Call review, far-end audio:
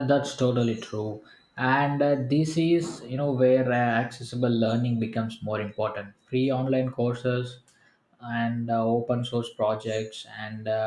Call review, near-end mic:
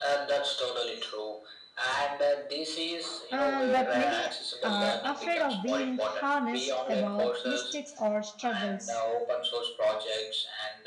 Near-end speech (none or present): present